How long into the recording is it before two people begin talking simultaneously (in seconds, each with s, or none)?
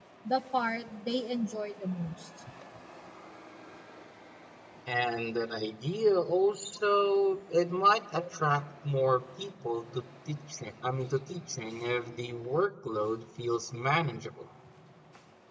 none